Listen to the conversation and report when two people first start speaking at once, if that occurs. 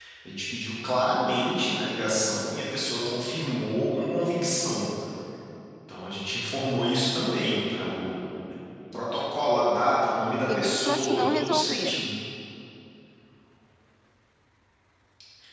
10.5 s

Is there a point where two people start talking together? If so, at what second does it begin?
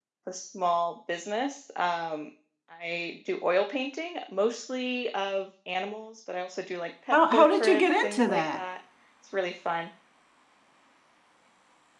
7.1 s

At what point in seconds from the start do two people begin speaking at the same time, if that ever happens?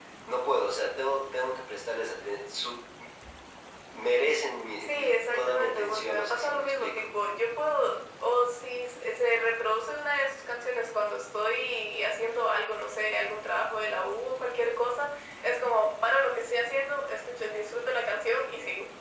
4.8 s

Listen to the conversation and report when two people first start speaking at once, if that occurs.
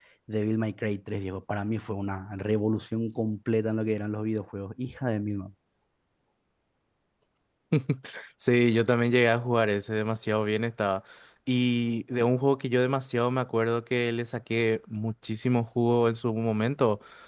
none

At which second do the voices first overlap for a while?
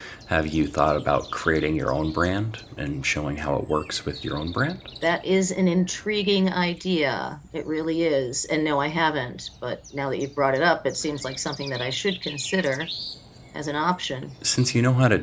none

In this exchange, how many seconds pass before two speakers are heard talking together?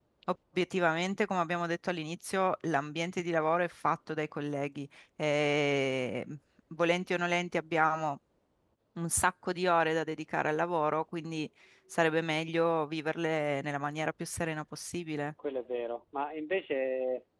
none

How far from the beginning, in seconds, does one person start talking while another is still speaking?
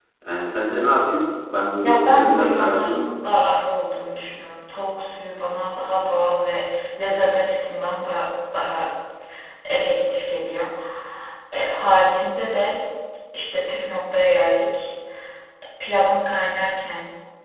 1.8 s

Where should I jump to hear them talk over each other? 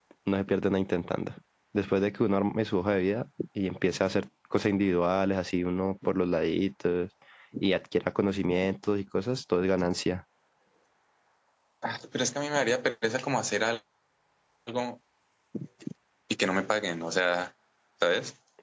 none

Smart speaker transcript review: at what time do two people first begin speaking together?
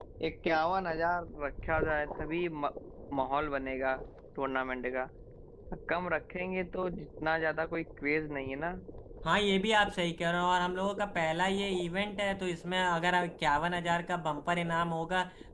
none

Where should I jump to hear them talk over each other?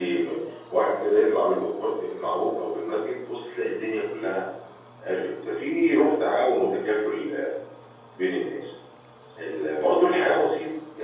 none

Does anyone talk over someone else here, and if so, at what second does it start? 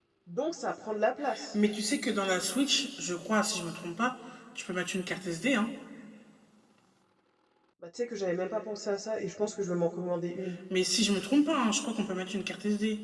none

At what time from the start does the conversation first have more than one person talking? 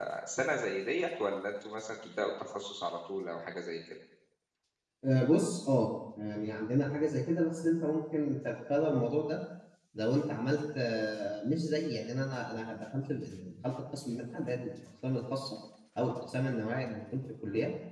none

